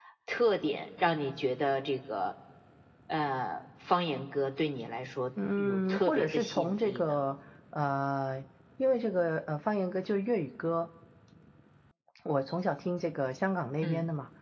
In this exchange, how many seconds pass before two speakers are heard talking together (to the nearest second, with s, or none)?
5 s